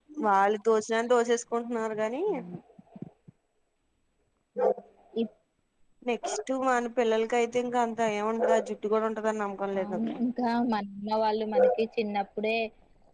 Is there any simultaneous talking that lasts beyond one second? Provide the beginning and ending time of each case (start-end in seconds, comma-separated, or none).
none